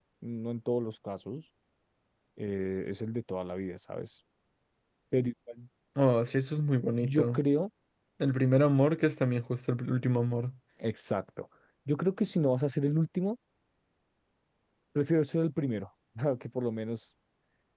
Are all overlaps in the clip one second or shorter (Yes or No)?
Yes